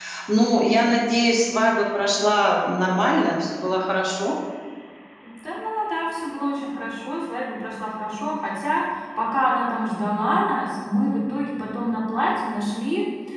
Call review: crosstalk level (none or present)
none